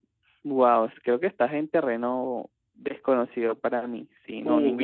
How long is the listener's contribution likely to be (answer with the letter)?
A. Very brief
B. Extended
B